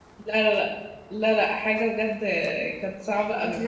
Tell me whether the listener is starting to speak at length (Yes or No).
Yes